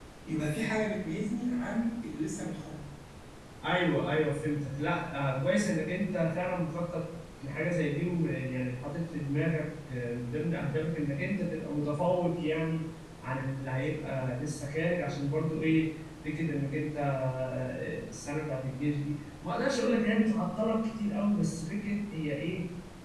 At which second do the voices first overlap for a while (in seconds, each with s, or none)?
none